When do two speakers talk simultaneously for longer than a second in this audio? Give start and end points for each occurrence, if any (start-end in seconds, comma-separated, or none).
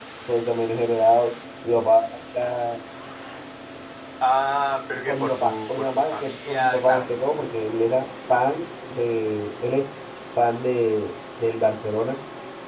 5.1-7.1